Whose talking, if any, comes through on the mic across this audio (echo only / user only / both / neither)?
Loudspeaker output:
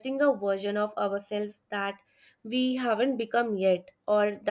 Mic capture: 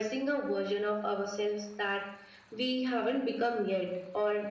echo only